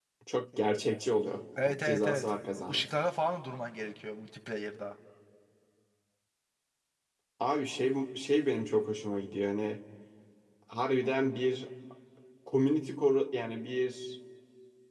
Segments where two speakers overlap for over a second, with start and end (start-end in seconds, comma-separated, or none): 1.6-2.8